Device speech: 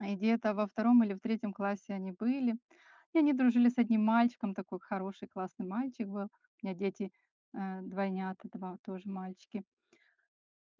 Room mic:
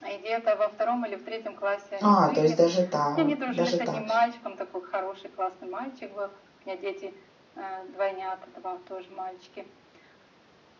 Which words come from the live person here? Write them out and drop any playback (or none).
А, то есть даже так, даже так.